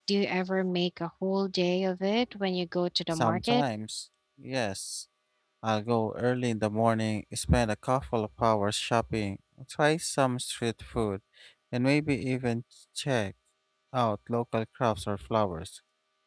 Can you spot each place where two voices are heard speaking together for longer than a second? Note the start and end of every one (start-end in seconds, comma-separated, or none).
none